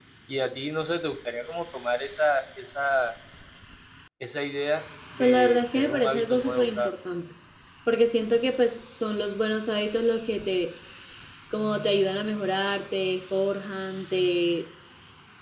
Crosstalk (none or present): present